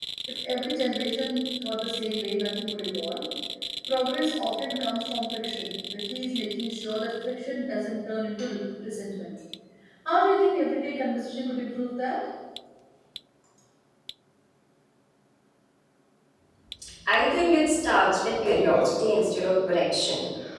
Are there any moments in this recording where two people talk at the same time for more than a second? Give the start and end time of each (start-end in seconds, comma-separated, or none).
none